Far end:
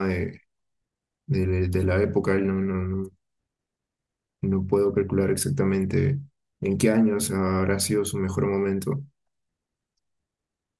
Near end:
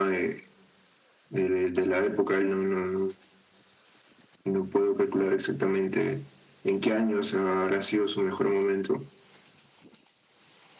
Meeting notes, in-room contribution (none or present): none